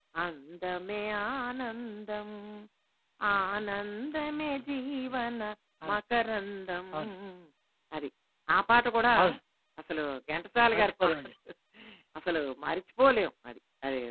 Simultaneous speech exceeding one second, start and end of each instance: 3.3-4.7

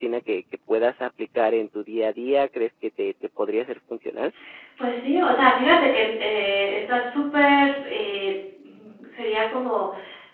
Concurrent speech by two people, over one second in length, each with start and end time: none

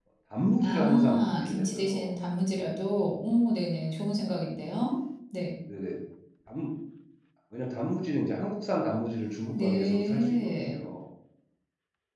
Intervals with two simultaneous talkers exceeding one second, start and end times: 0.6-2.1, 9.5-10.8

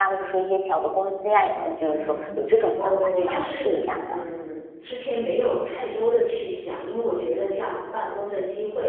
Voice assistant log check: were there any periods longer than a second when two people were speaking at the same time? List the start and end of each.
2.8-4.2

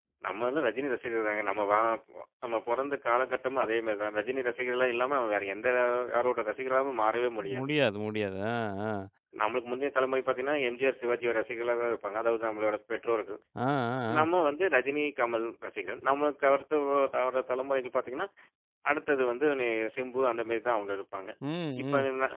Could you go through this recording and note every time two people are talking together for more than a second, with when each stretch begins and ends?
none

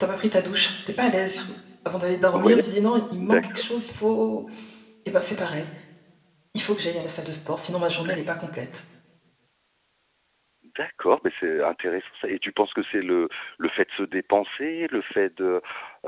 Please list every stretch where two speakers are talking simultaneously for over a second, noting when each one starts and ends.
none

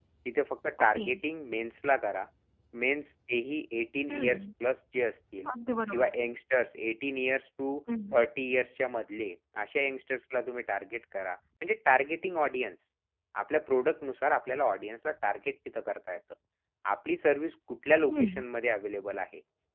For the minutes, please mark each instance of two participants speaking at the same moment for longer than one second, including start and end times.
none

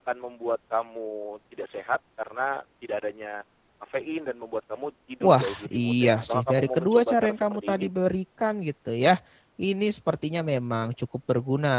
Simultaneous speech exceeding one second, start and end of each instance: 5.2-7.8

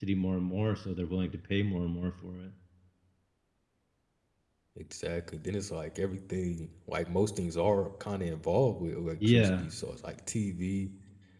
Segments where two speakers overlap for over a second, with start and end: none

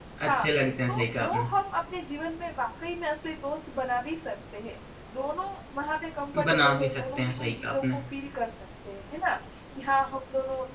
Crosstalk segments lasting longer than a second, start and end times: 6.4-8.0

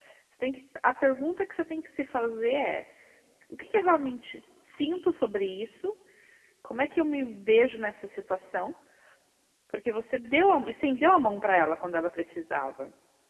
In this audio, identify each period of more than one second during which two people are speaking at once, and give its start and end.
none

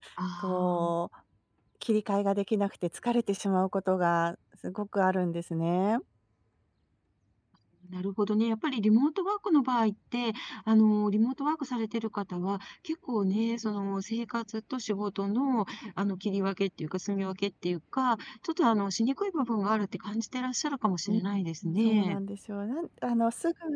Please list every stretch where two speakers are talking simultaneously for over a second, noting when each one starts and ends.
none

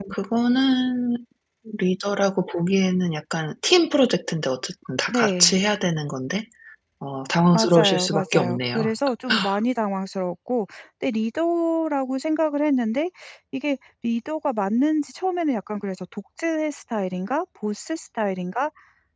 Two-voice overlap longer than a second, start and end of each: 7.5-8.9

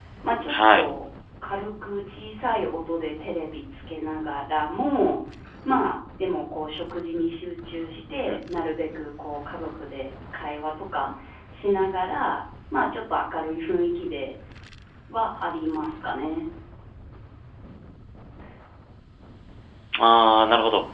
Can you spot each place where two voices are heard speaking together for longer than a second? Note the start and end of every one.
none

